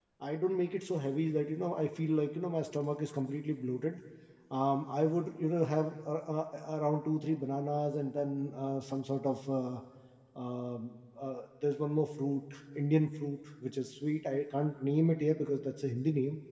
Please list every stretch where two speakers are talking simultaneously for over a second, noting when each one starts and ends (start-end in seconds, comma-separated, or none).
none